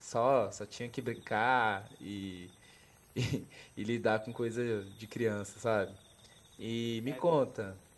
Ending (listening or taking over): listening